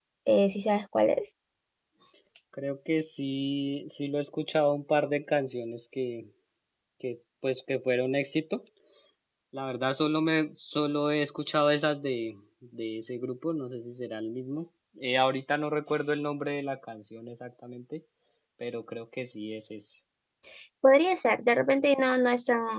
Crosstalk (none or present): none